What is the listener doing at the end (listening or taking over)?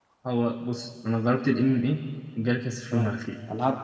taking over